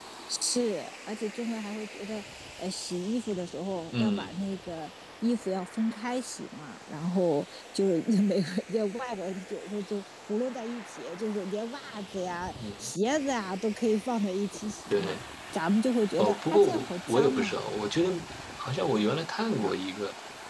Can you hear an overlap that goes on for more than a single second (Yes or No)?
Yes